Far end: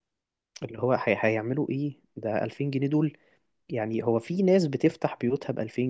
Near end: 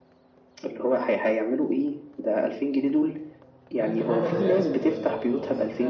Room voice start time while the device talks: 3.7 s

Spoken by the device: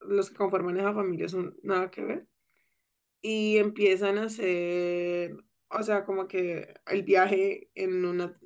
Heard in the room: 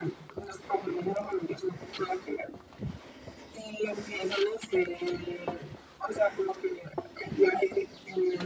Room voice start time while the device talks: none

